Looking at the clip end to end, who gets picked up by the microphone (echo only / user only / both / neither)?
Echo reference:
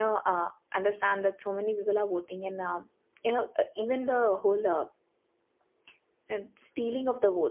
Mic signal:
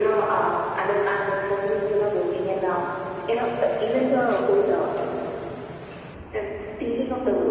echo only